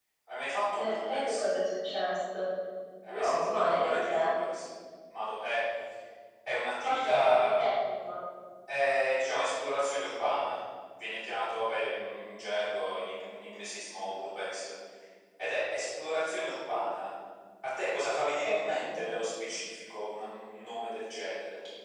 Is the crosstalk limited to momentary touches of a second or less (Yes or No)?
No